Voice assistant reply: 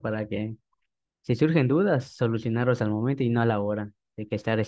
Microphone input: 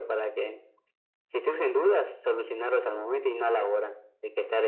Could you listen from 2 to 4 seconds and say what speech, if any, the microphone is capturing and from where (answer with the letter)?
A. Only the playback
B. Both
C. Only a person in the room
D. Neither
A